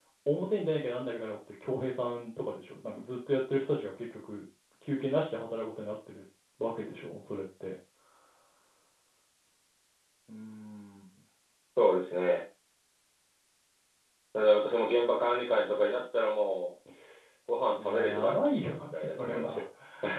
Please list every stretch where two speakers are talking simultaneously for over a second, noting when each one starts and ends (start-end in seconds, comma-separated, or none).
17.8-19.6